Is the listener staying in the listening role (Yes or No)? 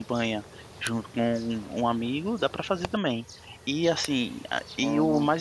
Yes